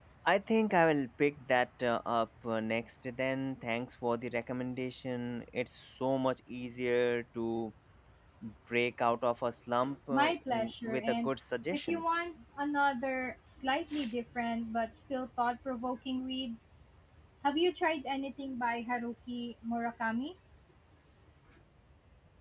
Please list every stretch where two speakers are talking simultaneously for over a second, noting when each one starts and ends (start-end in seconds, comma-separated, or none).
10.1-11.3